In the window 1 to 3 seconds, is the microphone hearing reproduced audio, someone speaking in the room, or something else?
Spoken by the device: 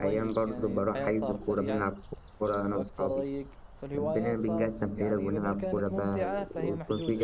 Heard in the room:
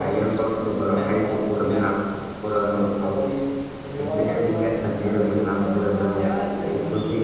echo only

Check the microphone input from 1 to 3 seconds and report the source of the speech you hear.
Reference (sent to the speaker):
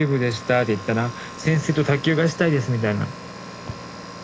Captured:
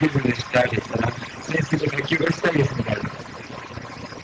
echo only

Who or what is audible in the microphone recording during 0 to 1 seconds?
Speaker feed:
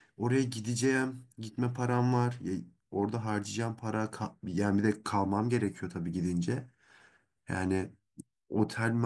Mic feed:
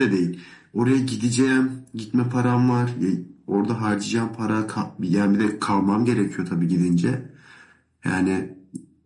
echo only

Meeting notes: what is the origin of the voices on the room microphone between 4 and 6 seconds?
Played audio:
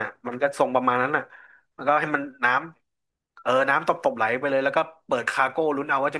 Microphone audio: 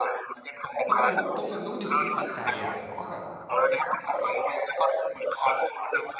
echo only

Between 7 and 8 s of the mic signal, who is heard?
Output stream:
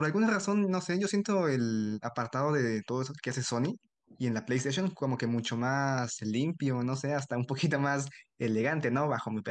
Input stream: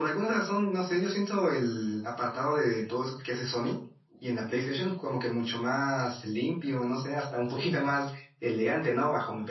both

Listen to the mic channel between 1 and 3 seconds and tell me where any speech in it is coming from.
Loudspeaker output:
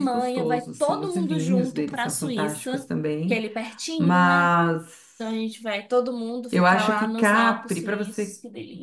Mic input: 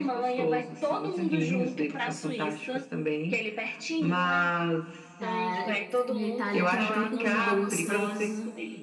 echo only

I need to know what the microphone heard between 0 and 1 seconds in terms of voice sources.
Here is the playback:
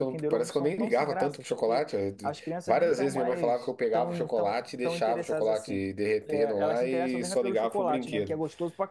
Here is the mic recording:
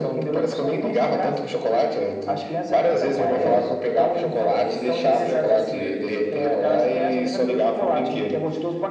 echo only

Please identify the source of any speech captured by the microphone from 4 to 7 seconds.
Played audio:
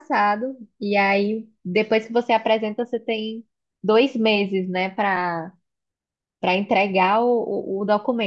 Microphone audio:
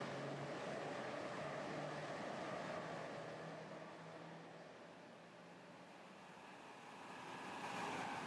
neither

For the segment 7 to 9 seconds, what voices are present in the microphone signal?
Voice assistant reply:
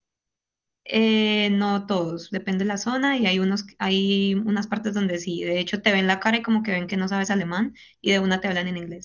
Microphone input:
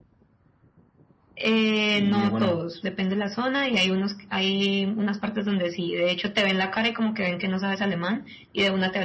echo only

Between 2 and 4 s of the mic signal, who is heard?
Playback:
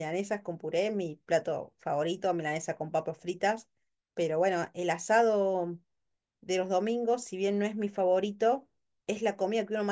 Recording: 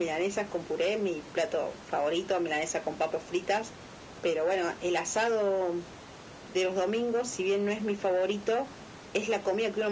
echo only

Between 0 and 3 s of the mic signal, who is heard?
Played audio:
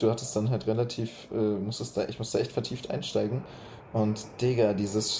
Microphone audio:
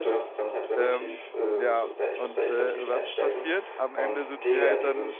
both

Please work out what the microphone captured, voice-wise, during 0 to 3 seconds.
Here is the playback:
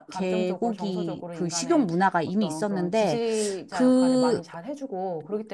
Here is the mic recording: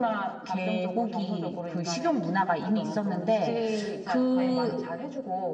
echo only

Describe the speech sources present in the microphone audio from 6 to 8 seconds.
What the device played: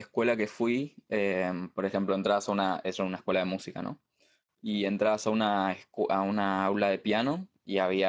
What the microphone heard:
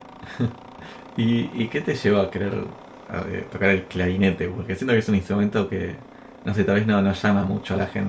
user only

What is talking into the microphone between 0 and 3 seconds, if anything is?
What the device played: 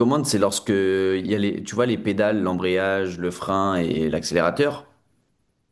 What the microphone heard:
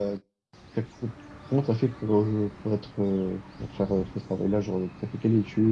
user only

